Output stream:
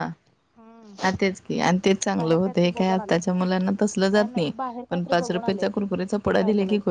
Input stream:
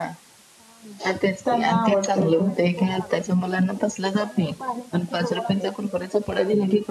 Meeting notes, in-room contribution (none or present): present